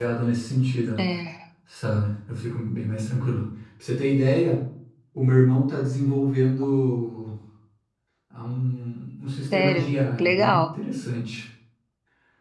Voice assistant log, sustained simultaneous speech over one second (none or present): present